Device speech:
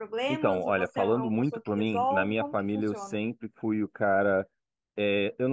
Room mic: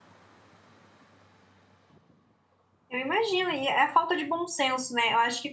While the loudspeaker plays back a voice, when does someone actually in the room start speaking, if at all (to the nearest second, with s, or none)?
3 s